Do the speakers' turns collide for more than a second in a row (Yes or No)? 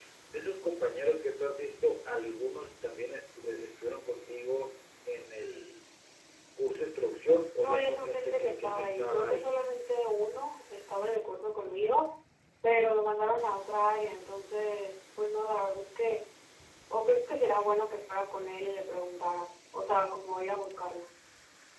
Yes